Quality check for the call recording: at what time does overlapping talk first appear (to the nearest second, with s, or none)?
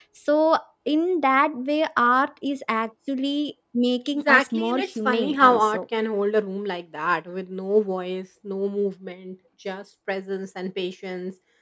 4 s